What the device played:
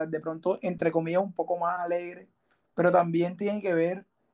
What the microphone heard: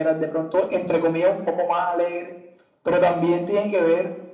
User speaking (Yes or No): No